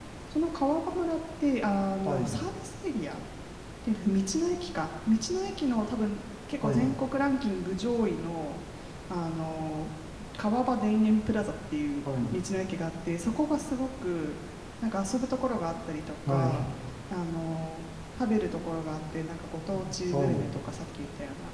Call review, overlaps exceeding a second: none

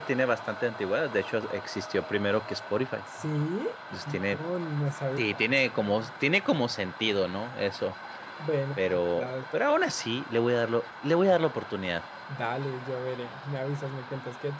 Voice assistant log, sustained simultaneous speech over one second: none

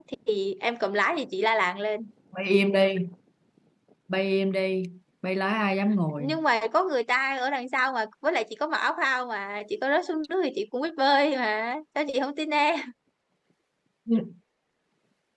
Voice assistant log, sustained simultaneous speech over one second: none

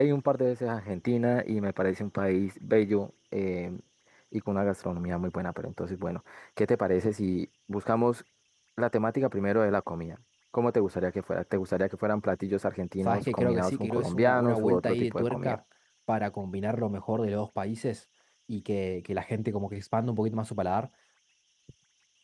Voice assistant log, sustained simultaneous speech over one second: present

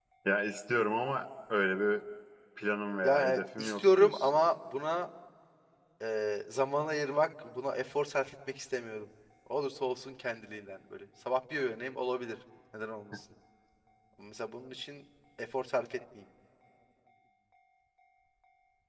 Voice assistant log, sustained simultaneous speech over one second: present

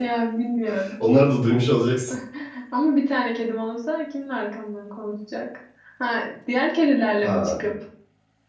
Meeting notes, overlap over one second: none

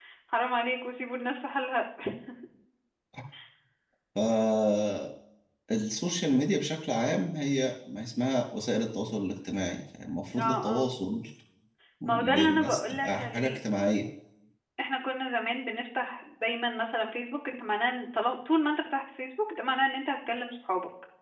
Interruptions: present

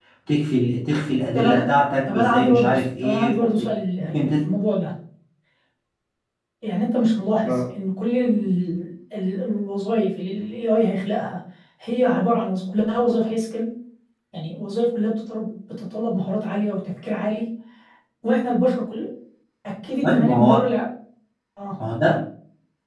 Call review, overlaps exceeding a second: present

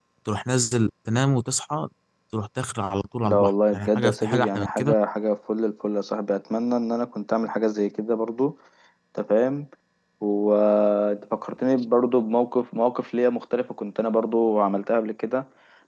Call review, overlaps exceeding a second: present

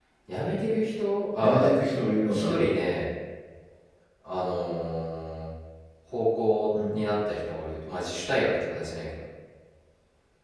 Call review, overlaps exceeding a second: none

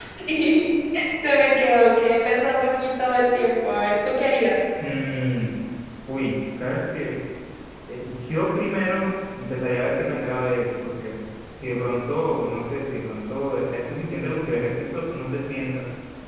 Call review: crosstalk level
none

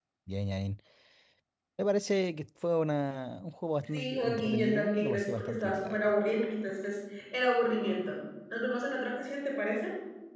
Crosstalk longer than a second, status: present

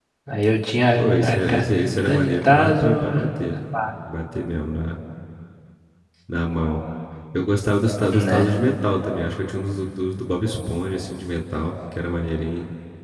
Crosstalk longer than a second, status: present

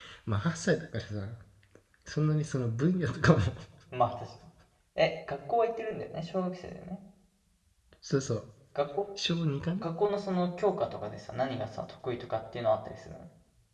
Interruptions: none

